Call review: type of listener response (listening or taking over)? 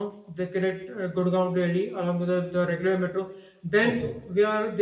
listening